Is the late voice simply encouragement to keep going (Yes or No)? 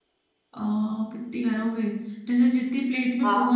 Yes